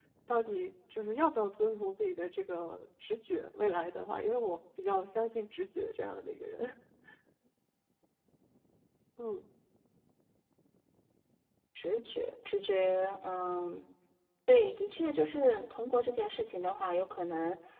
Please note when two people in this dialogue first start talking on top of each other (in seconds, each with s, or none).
none